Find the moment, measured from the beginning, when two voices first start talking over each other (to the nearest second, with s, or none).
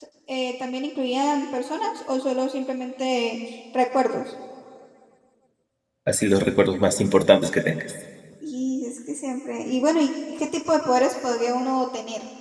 none